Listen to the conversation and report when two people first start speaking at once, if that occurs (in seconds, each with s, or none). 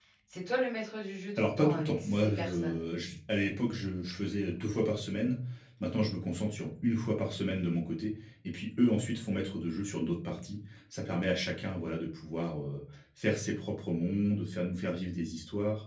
1.4 s